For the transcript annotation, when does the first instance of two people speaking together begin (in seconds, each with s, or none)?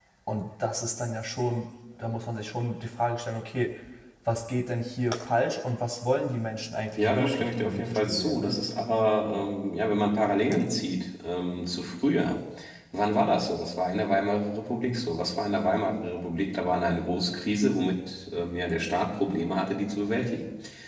7.0 s